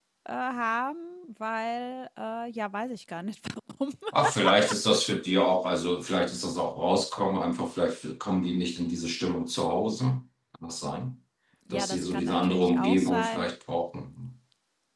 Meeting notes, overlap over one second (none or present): present